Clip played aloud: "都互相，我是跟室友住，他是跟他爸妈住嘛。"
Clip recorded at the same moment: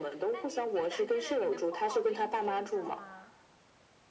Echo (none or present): present